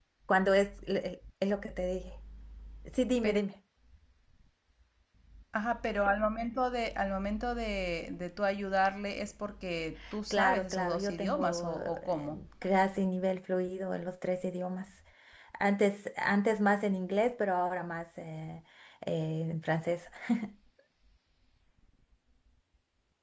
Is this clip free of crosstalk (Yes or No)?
No